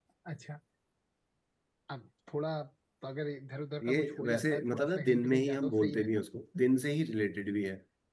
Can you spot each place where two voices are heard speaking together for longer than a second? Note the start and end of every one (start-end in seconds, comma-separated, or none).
3.8-6.1